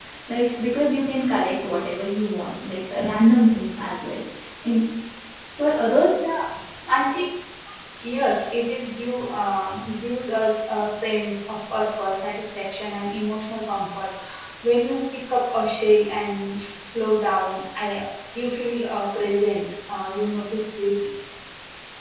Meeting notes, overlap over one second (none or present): none